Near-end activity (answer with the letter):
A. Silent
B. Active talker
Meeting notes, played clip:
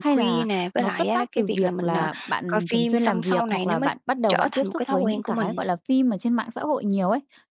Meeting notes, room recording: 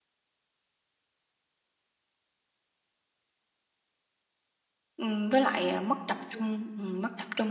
B